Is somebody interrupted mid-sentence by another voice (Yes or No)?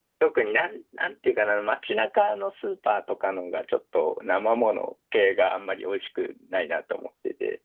No